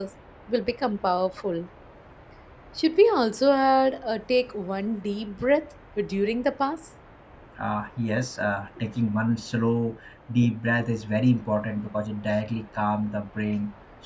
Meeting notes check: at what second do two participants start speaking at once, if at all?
none

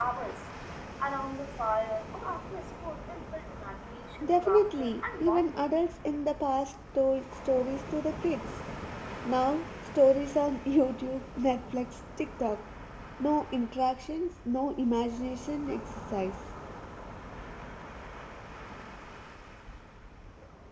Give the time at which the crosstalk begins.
4.2 s

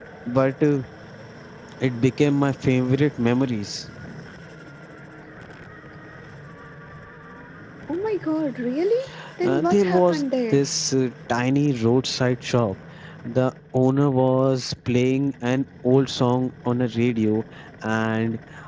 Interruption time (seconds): 9.4 s

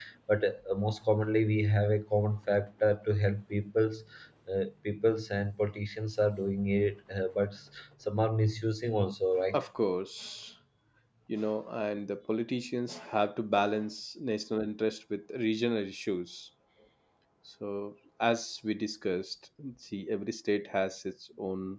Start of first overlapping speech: none

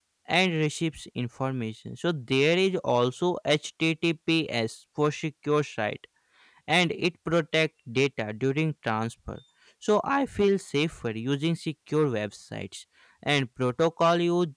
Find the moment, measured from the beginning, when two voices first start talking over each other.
none

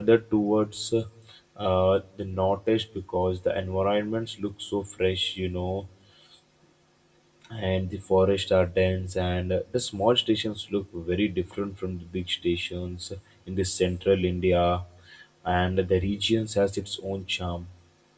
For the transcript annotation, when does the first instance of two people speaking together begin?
none

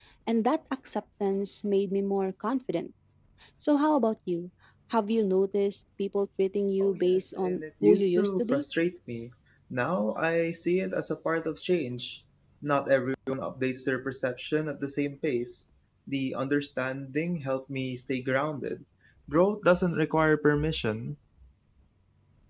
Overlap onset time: 6.8 s

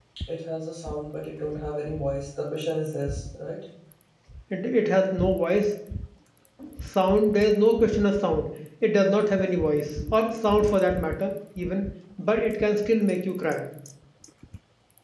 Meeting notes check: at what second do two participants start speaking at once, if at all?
none

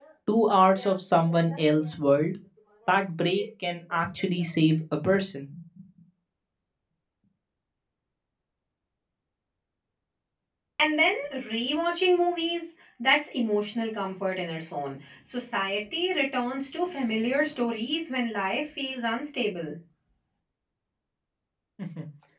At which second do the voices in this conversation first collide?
none

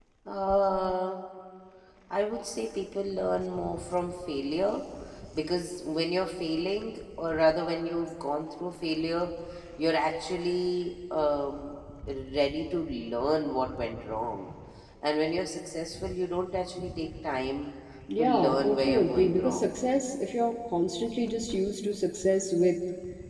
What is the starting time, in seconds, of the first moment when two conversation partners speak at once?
18.2 s

